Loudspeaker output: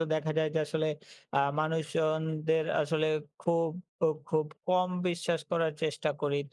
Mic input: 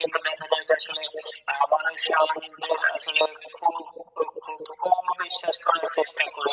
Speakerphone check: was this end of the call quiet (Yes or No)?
Yes